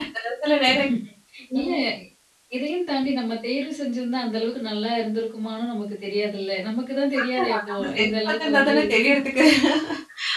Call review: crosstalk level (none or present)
present